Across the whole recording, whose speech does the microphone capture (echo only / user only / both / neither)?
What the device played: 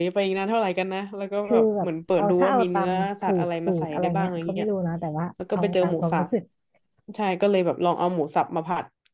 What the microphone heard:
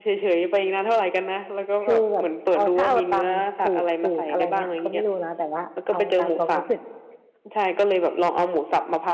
echo only